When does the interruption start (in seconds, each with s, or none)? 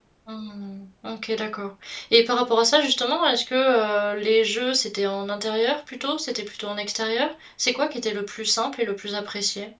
none